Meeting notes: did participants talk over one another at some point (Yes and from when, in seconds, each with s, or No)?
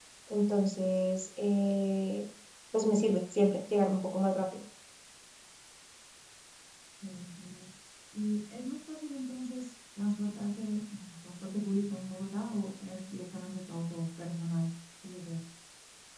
No